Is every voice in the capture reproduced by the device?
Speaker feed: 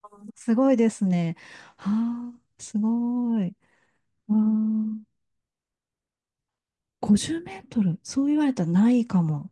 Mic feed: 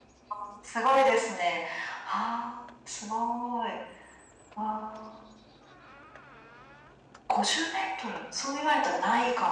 Yes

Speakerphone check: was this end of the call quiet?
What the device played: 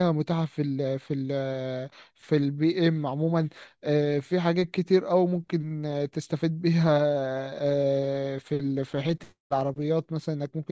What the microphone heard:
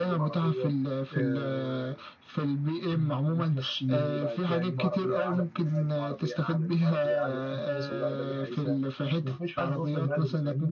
No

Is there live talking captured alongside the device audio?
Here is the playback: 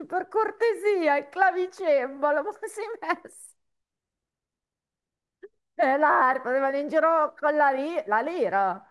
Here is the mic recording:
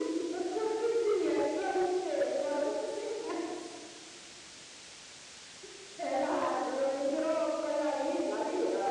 No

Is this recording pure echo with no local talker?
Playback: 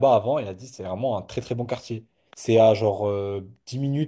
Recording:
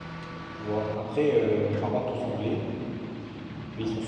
No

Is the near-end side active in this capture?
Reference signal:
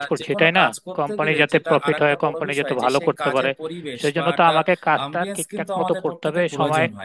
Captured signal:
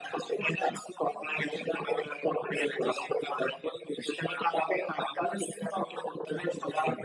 No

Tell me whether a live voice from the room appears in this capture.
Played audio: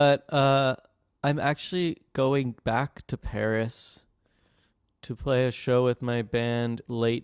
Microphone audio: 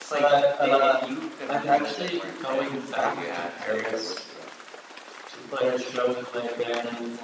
Yes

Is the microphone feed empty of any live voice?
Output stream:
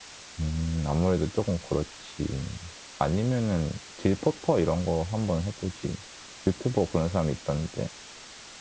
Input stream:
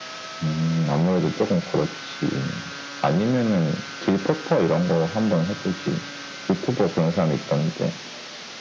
Yes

